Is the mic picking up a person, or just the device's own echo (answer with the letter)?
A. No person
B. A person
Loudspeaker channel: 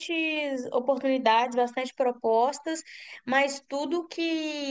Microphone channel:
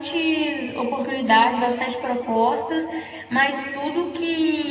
A